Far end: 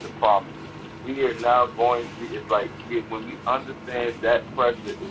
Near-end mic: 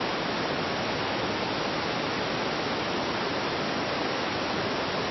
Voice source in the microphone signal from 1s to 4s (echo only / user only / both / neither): neither